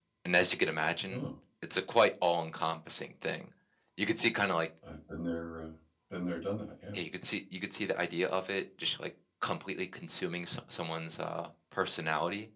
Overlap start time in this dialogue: none

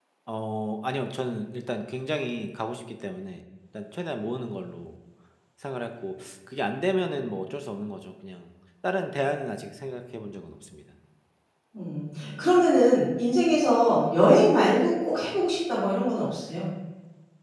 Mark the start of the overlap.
none

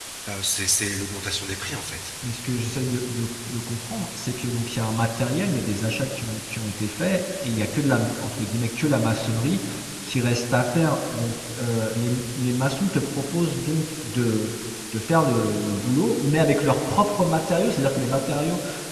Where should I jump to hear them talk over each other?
none

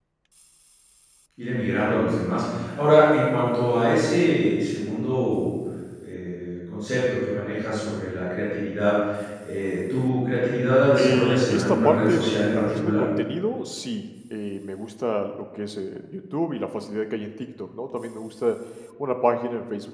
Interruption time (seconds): 10.9 s

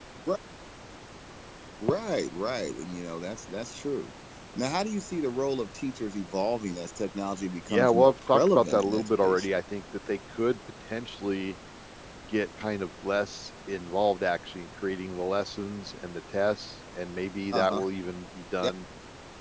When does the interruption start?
7.7 s

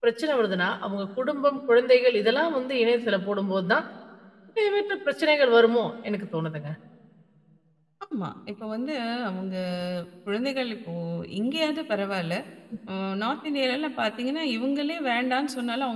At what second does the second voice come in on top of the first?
none

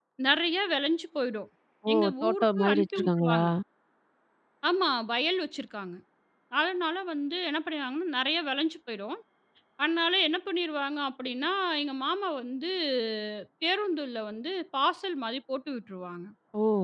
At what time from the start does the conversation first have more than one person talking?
1.9 s

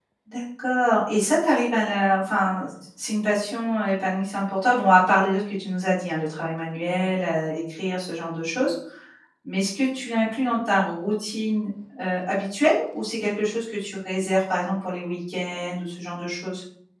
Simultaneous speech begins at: none

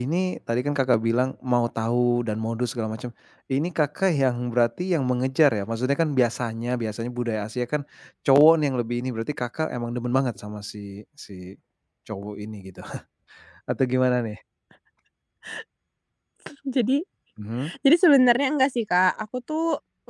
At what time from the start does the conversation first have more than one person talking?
none

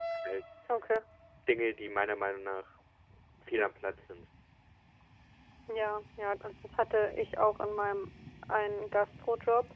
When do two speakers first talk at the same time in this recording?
none

